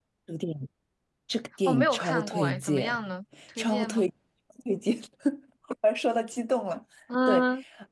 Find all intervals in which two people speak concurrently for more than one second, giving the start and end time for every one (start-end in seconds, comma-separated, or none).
1.6-3.1